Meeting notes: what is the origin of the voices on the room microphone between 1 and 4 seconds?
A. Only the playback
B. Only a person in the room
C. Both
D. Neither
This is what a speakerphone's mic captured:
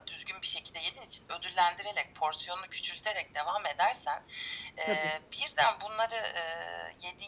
A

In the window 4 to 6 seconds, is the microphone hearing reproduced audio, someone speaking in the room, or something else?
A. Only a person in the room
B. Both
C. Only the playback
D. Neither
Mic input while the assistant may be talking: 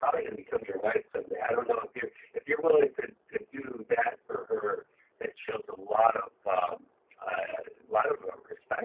C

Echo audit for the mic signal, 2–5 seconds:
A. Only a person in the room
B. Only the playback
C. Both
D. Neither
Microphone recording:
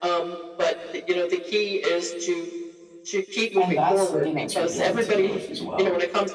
C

